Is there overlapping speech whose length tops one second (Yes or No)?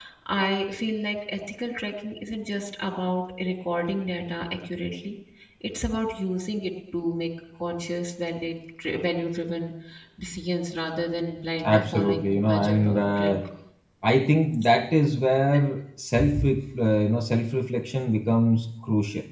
Yes